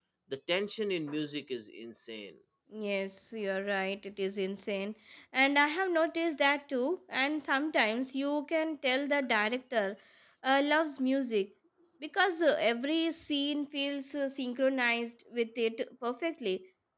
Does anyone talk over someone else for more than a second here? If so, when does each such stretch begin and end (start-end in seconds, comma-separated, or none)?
none